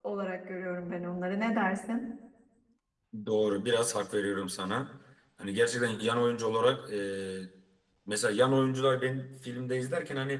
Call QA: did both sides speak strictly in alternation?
Yes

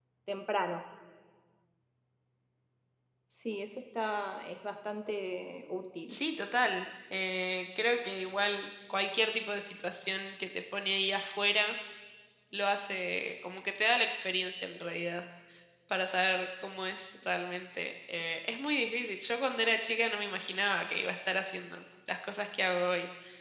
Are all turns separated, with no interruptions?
Yes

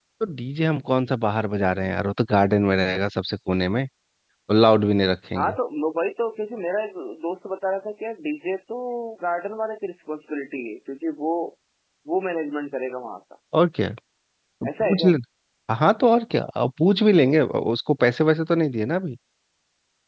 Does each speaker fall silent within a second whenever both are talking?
Yes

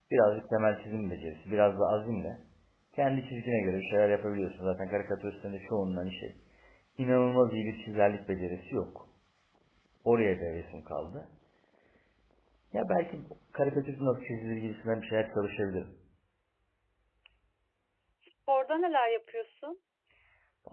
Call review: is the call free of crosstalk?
Yes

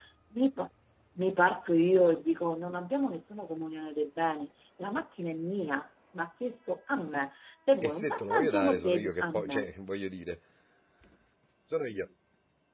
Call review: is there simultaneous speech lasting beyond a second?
Yes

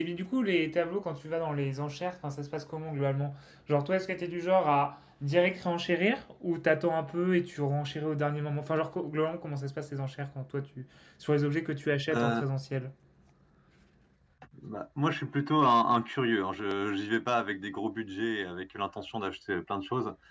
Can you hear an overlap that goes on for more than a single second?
No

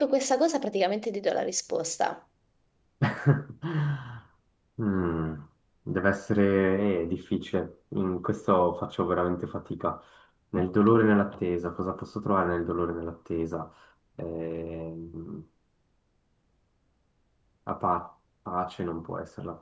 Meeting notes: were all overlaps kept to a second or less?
Yes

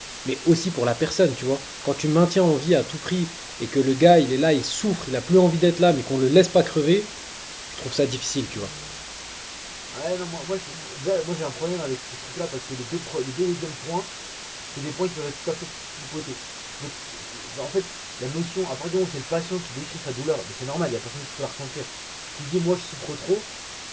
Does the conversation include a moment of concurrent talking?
No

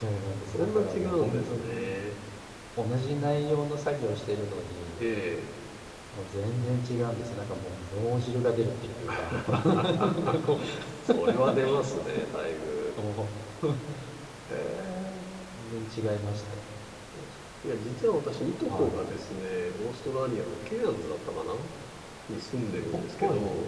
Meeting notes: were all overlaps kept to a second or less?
No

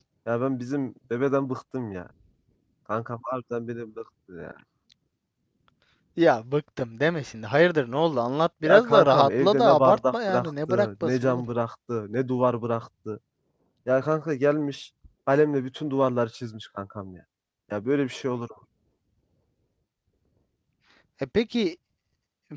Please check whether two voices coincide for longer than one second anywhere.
Yes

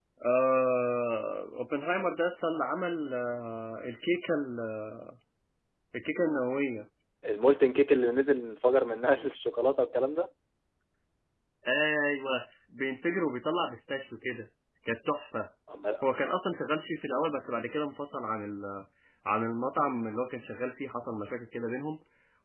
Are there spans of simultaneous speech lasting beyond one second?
No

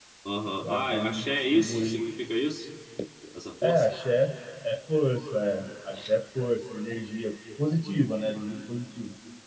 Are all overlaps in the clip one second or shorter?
No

